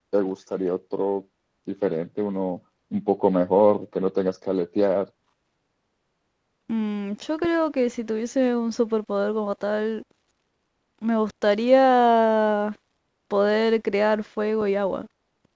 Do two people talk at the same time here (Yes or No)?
No